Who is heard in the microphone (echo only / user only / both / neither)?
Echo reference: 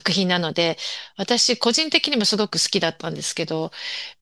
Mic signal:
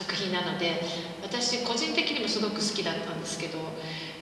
echo only